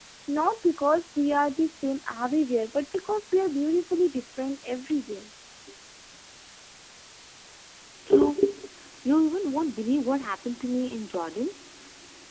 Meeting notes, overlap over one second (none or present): none